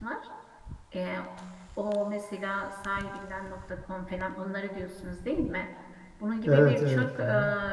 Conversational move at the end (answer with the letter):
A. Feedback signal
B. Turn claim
A